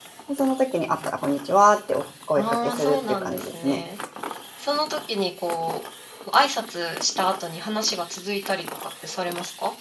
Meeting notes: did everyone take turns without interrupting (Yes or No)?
No